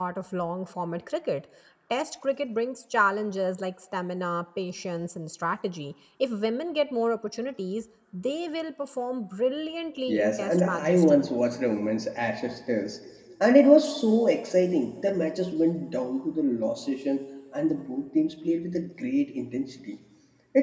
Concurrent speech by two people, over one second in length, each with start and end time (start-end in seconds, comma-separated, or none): 10.1-11.3